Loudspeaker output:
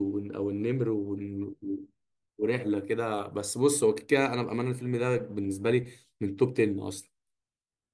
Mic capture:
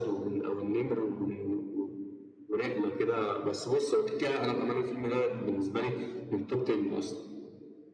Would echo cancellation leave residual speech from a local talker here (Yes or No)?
No